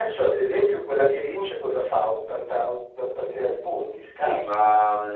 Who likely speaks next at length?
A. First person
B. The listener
B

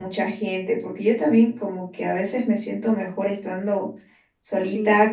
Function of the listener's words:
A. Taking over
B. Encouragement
B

